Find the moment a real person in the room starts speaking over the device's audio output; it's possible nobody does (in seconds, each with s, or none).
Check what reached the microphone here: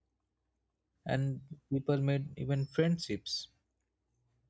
1.1 s